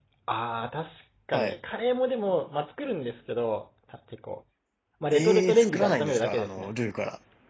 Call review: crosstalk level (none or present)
present